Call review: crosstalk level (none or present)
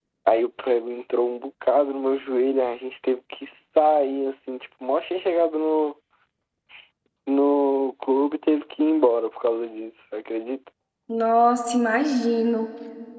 none